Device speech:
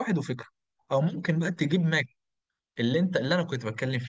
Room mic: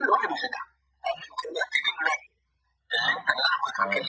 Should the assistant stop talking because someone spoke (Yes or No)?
Yes